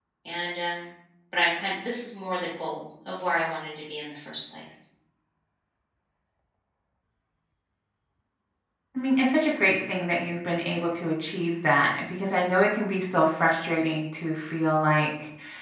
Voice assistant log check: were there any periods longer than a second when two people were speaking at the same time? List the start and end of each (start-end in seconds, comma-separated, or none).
none